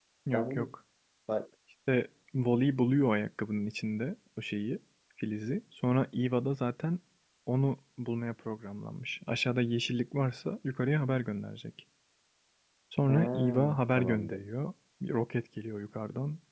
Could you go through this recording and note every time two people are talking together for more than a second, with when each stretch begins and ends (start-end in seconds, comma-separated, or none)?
13.1-14.4